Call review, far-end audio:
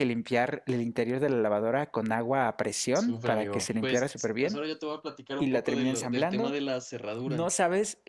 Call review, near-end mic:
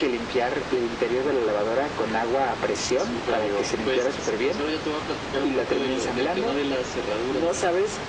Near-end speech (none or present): none